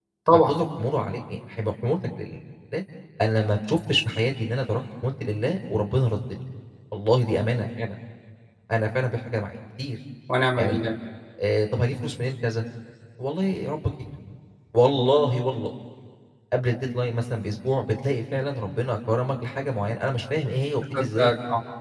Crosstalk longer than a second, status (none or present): none